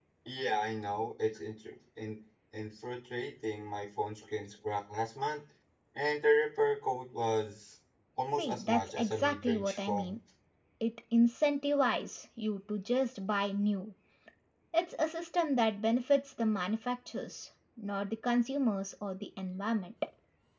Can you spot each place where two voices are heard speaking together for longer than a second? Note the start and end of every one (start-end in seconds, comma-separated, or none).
8.4-10.2